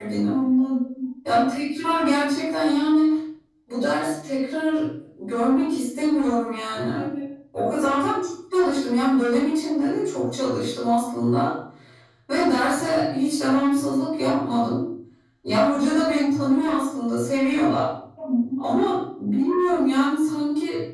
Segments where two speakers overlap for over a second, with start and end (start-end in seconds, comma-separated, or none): none